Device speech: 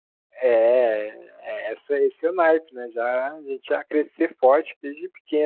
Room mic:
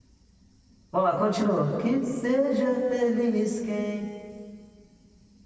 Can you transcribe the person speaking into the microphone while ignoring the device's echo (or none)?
Vamos lá, continua. Que seja feliz quem.